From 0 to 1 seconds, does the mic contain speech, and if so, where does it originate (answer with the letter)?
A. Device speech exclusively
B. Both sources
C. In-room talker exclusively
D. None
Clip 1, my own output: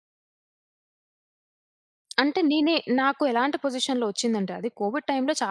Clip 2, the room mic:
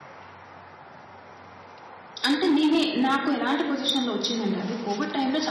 D